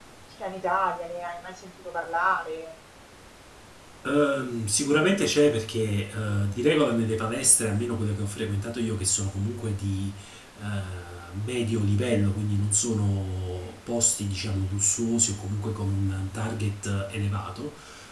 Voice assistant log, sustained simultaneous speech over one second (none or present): none